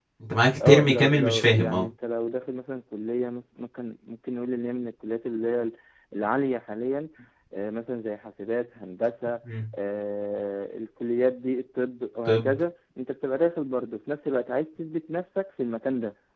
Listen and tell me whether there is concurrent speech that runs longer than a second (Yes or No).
Yes